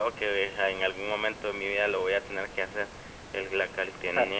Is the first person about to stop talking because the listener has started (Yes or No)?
No